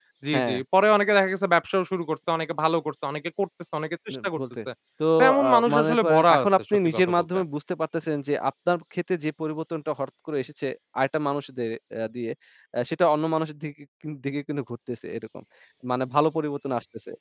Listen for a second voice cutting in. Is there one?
Yes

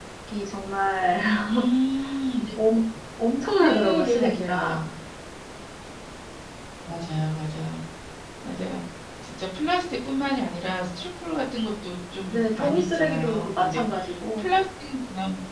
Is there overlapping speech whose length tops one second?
Yes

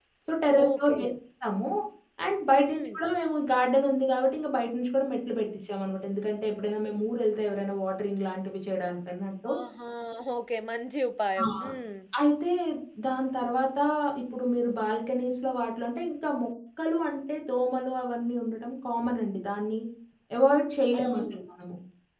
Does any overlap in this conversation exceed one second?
No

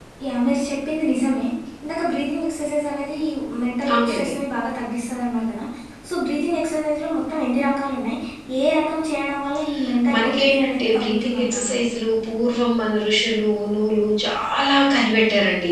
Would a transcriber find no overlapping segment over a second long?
No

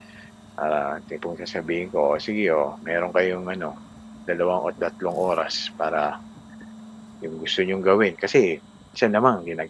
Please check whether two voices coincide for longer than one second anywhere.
No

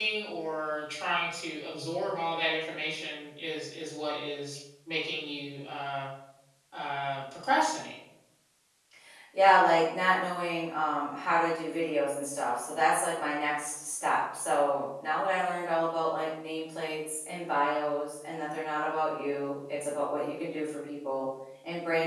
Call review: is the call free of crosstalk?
Yes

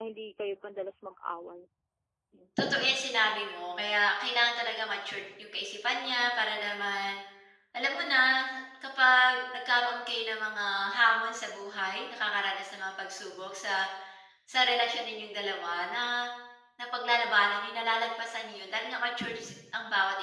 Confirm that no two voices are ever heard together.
Yes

